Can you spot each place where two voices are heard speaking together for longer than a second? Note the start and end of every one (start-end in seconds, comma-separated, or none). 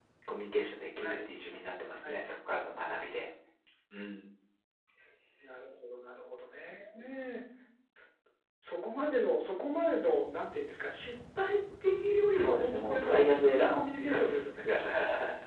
12.3-14.4